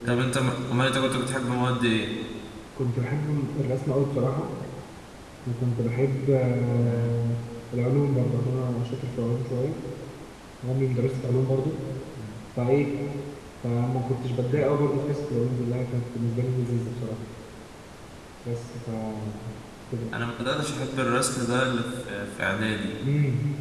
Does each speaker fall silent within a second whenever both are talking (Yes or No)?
Yes